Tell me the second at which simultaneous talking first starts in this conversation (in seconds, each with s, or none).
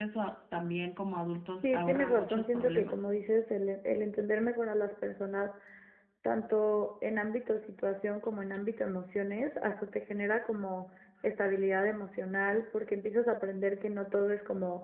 1.6 s